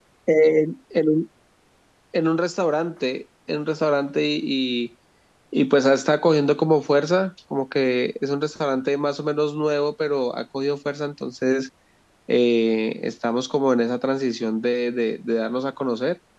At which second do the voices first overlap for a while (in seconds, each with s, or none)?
none